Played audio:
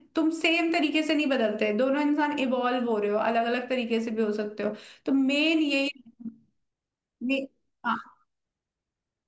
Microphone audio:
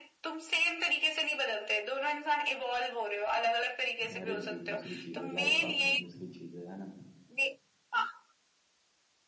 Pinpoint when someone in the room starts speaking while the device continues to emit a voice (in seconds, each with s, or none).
4.1 s